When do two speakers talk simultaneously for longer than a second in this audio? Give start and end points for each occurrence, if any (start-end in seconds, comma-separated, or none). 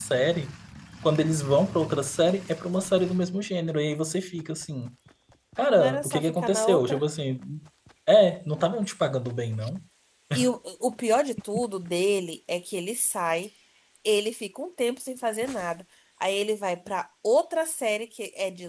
5.8-7.0